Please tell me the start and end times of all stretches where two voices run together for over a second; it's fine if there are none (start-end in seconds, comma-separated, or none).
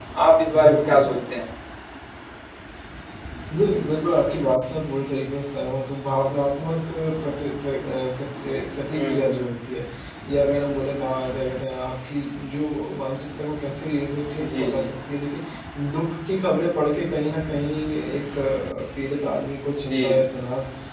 none